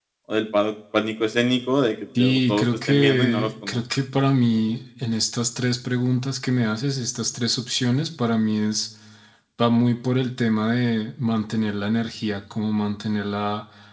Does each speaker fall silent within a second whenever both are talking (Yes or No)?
No